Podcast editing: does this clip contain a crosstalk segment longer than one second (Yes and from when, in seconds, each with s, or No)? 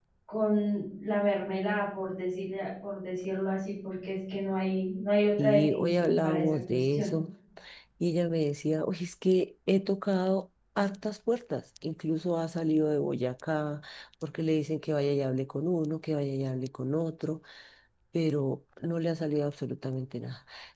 Yes, from 5.4 s